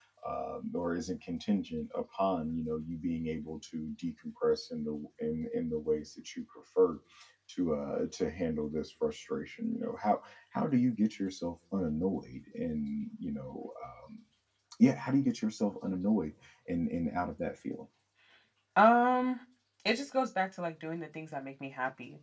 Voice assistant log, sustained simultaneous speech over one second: none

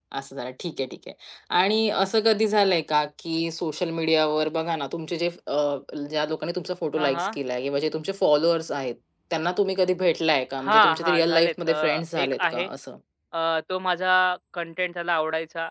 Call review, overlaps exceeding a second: present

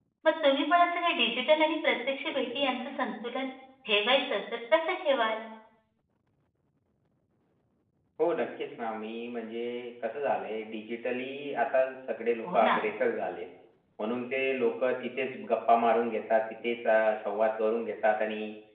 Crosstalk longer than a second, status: none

